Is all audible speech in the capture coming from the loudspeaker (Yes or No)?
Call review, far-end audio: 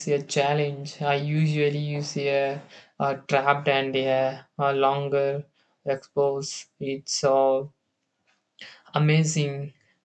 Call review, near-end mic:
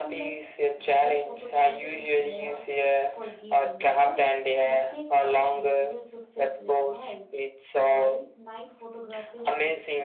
No